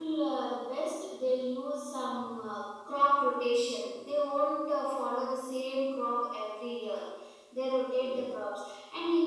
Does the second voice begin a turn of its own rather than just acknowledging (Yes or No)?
No